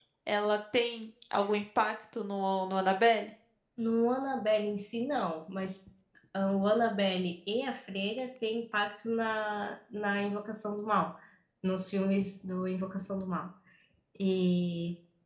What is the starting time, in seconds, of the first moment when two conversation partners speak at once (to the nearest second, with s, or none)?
none